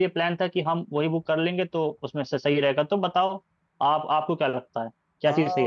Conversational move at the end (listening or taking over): taking over